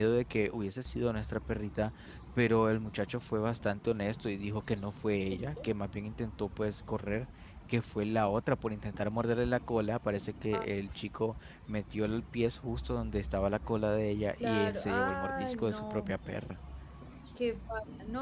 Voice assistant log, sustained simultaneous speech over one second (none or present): present